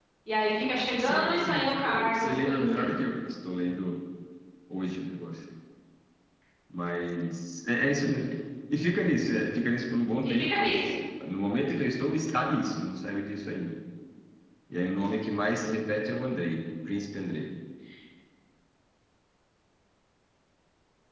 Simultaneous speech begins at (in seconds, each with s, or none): 1.0 s